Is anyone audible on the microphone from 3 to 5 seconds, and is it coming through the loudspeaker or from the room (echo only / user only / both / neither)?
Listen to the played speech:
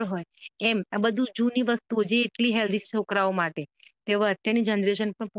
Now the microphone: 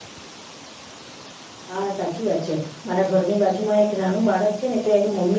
user only